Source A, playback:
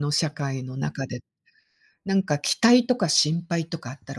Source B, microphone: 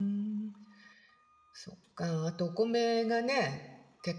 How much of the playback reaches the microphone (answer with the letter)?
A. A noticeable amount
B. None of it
B